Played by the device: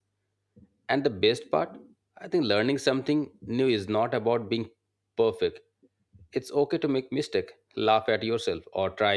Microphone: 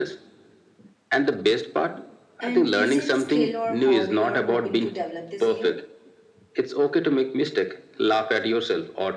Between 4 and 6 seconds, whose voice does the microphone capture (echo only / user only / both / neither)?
both